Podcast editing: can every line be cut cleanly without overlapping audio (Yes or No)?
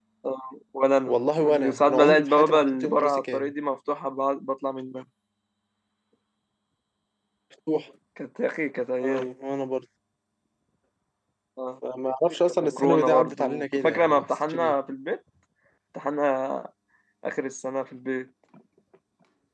No